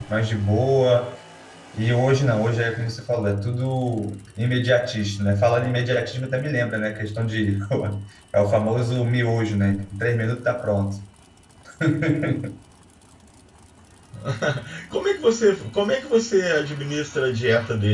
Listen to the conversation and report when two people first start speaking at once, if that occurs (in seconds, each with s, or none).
none